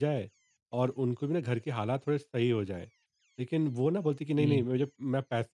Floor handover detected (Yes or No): No